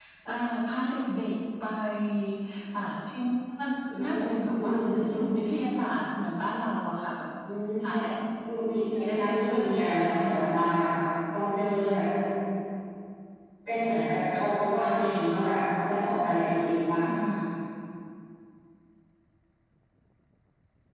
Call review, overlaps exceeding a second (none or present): present